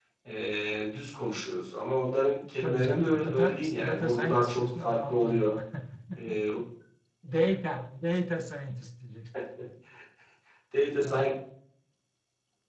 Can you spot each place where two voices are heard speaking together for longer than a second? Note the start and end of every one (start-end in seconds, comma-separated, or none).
2.6-5.6